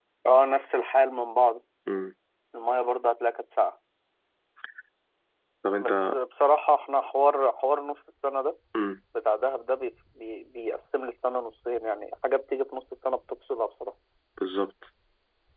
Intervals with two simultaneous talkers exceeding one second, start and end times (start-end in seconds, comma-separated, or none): none